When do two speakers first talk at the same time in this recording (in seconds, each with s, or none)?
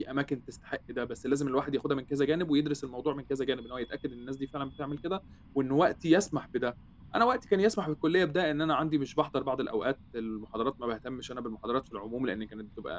none